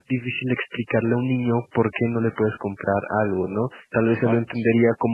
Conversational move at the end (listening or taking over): listening